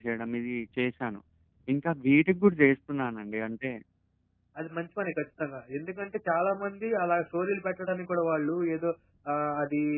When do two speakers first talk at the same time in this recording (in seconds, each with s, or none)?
none